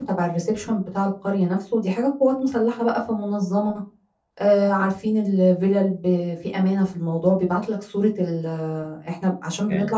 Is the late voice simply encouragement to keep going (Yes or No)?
Yes